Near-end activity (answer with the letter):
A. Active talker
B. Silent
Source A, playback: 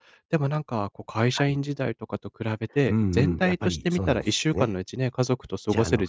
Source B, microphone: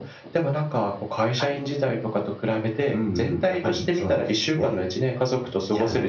B